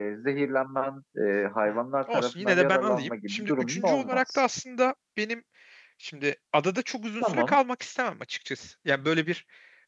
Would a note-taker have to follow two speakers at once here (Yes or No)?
Yes